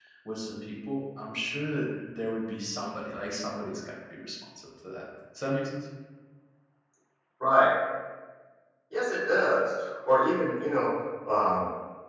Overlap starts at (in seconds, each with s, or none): none